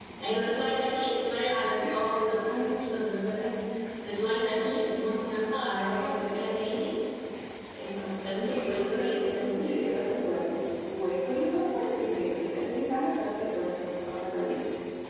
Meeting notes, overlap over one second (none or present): present